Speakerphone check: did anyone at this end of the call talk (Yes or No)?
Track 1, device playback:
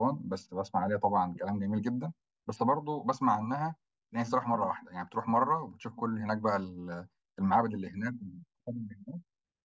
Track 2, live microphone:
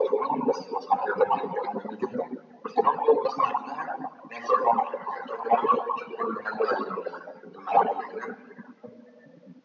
No